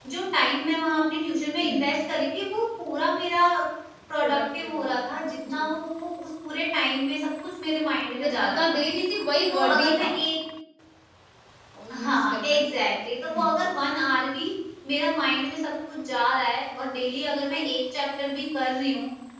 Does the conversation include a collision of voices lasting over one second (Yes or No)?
Yes